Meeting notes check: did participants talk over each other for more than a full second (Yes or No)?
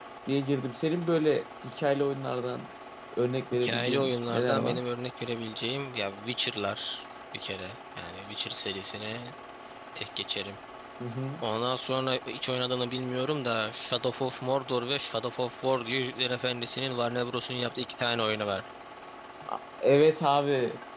Yes